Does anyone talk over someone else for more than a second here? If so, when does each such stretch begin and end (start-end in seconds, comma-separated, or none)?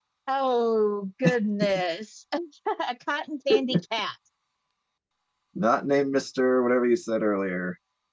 none